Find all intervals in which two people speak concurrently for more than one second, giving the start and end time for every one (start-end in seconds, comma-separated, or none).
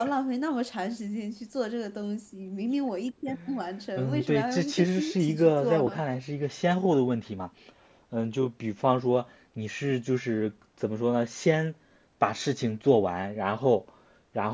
4.0-6.0